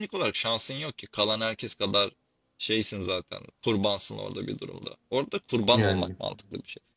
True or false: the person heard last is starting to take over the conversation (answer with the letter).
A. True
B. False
B